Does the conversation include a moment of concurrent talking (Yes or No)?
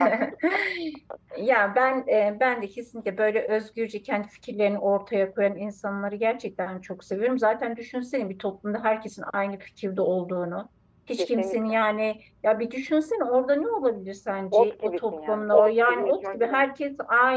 Yes